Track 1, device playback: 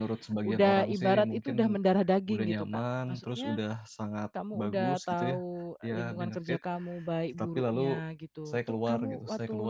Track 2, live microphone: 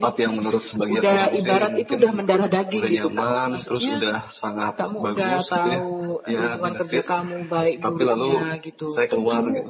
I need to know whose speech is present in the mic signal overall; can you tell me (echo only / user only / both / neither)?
echo only